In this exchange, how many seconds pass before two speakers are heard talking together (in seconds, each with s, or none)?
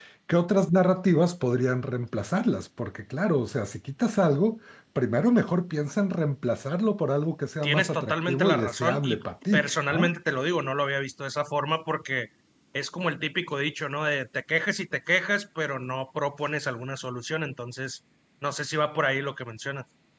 7.6 s